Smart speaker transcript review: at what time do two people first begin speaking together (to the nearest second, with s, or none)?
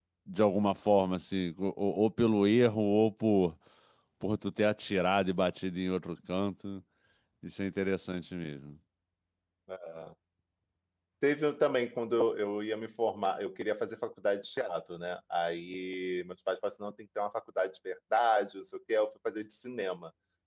none